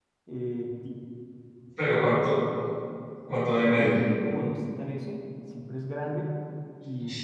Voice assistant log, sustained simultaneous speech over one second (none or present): none